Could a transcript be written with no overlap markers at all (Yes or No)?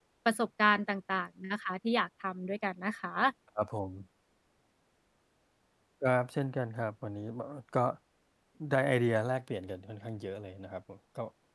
Yes